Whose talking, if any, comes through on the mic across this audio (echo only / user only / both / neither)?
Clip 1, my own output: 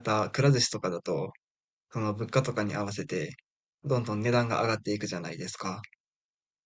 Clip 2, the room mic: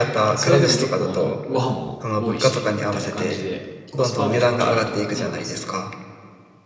both